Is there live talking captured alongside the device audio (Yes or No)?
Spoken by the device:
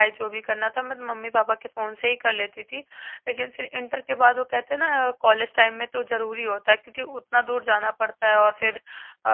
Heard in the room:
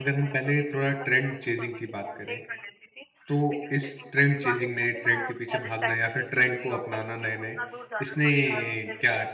Yes